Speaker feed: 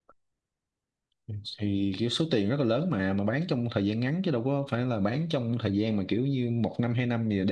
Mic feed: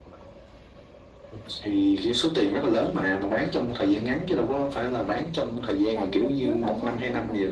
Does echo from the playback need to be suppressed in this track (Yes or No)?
Yes